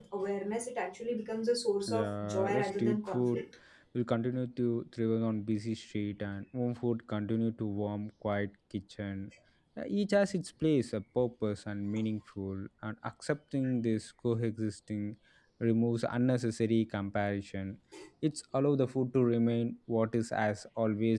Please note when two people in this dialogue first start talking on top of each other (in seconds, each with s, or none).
1.9 s